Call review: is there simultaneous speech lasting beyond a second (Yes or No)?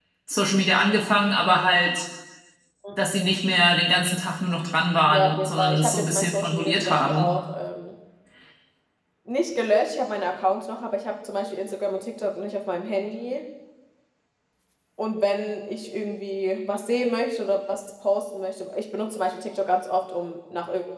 Yes